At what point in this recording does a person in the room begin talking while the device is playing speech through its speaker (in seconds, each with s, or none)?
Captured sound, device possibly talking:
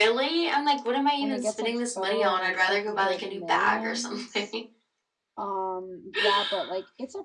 1.2 s